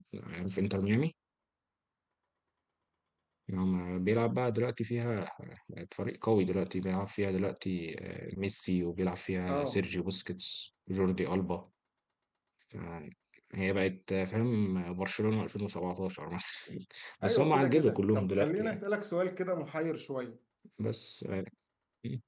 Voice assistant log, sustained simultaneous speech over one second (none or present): present